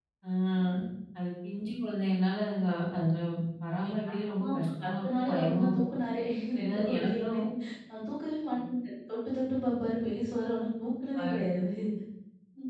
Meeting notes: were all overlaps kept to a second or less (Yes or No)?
No